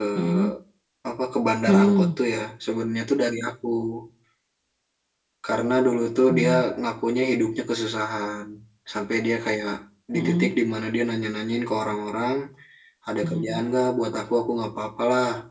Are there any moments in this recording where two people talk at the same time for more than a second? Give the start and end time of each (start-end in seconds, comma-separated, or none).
none